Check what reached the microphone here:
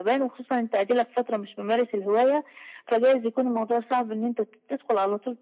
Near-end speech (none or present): none